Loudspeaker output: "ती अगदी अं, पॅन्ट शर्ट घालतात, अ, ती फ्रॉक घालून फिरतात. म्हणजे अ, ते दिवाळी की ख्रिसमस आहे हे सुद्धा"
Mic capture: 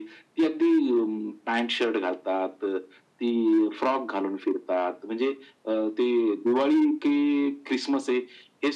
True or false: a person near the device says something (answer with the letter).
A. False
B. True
A